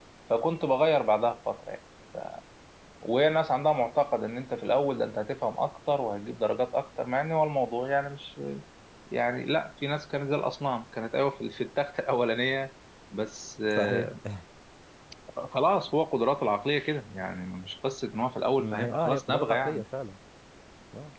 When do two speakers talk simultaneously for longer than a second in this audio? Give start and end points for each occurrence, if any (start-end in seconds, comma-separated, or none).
18.6-19.8